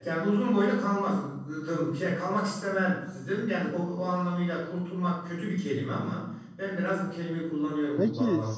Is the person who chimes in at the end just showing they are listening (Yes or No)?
No